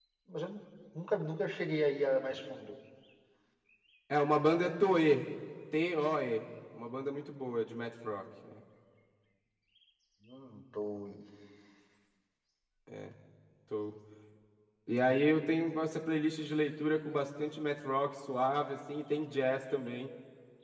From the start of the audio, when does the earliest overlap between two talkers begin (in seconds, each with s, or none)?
none